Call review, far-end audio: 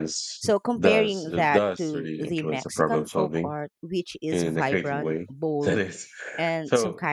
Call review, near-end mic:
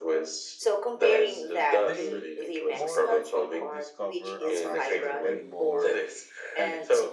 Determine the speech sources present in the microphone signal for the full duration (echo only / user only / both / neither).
both